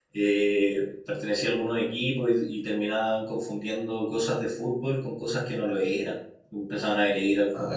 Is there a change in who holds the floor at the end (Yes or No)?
No